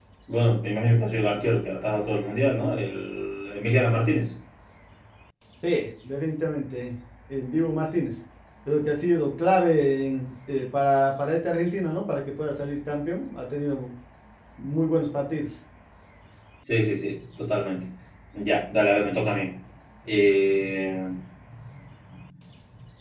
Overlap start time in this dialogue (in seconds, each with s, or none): none